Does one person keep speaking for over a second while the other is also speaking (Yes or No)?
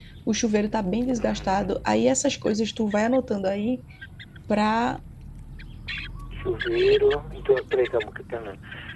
No